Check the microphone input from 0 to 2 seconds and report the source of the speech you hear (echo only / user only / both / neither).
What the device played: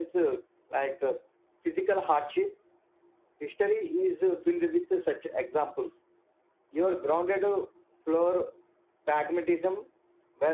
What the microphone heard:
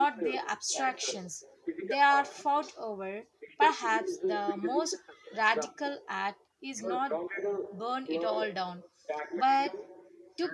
both